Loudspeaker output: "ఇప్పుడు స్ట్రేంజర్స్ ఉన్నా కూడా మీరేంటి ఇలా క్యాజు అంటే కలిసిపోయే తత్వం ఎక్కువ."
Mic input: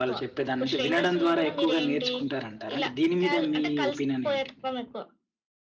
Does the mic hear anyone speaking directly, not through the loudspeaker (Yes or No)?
Yes